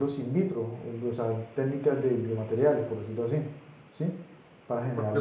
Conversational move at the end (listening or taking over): taking over